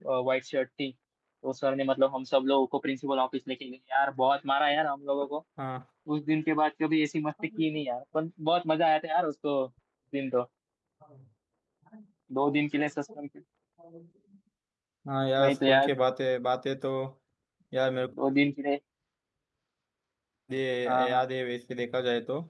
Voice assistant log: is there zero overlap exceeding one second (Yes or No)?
Yes